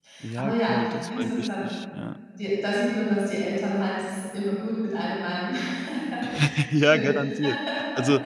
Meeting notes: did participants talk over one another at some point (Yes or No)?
Yes